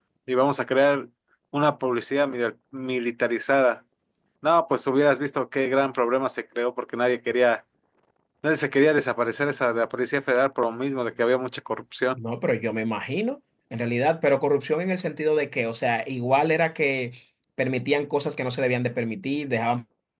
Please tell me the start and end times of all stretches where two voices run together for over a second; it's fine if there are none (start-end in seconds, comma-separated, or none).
none